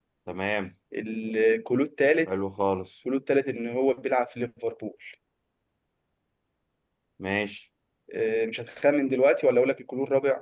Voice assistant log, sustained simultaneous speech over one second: none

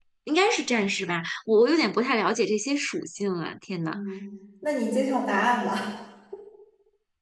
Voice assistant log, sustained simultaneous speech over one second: none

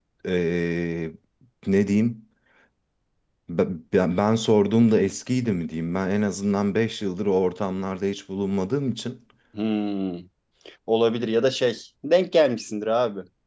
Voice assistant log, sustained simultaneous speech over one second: none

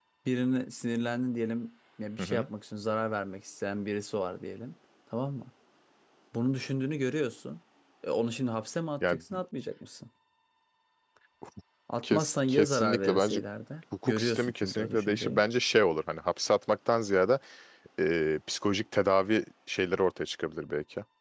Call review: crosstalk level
present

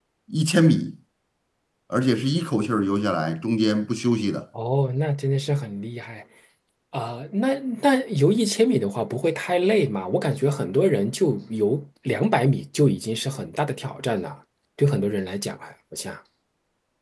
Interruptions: none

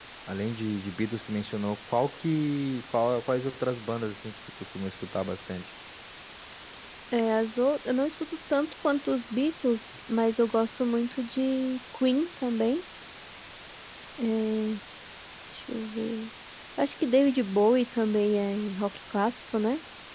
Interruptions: none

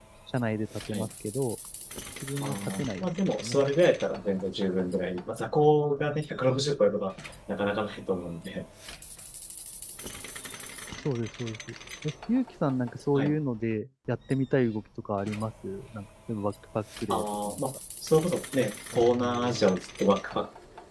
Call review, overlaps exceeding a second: present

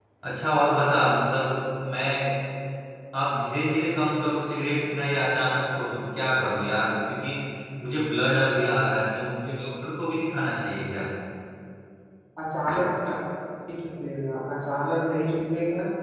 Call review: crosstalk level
none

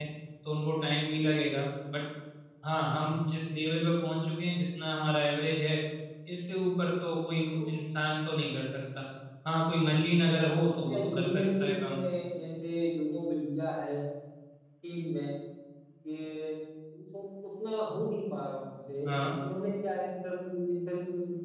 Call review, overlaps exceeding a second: present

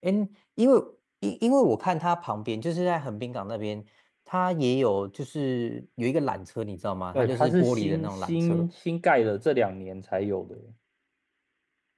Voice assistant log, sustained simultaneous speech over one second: present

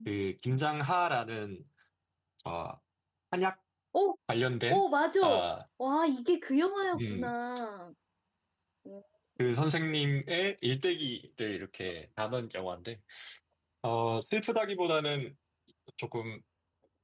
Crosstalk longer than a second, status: none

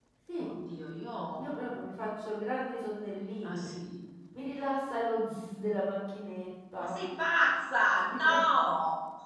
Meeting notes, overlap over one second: none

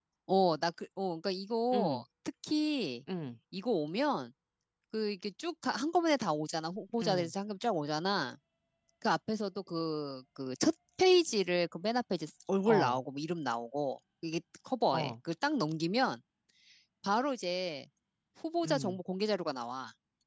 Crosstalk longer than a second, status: none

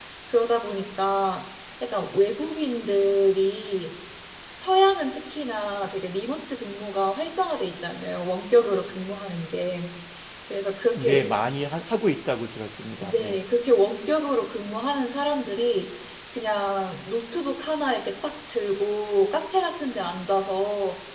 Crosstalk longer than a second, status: none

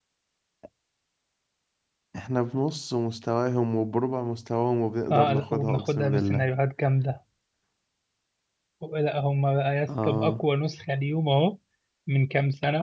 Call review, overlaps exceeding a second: present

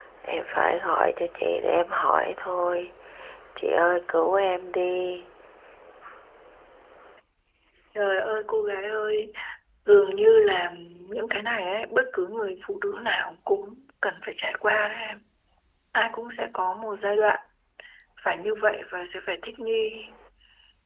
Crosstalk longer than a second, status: none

